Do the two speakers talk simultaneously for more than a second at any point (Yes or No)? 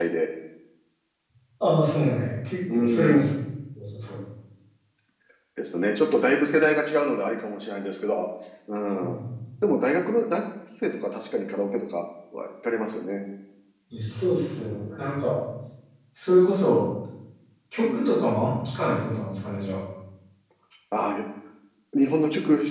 No